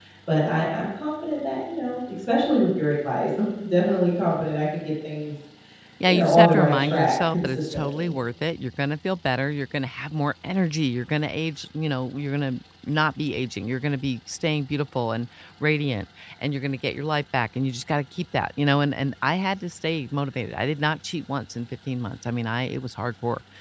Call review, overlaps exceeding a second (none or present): present